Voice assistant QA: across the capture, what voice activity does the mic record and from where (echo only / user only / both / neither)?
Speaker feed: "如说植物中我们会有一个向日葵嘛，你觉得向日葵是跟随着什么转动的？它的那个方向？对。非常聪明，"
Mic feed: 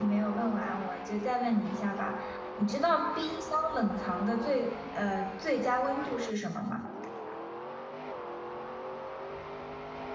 user only